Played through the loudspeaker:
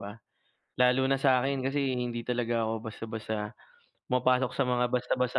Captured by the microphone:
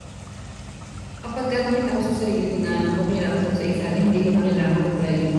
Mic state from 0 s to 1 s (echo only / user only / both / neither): neither